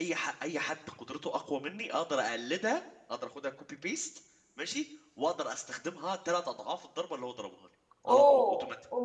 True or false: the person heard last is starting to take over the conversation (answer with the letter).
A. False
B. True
B